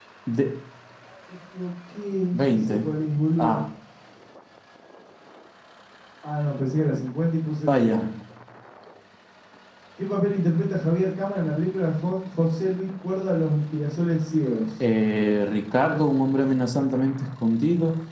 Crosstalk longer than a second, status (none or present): none